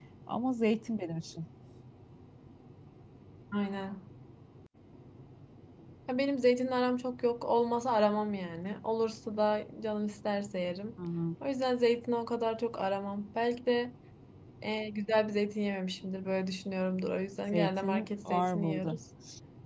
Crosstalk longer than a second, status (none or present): present